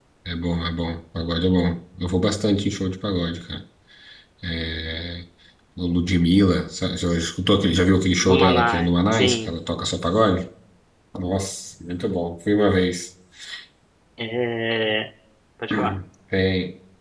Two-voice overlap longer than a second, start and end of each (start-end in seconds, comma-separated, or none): 8.2-9.6